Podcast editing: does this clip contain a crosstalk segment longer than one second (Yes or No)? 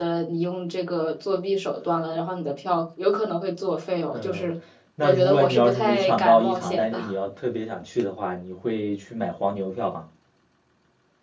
Yes